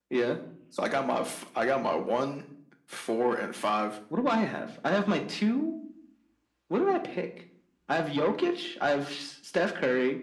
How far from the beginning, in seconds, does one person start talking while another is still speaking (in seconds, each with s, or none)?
none